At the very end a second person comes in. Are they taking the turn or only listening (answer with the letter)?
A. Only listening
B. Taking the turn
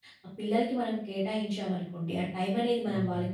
A